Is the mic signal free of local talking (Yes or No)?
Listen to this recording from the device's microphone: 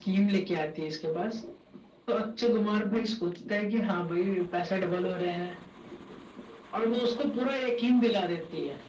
Yes